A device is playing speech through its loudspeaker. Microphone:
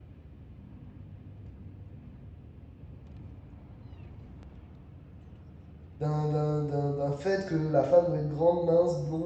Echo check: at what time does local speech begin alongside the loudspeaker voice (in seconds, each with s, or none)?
6.0 s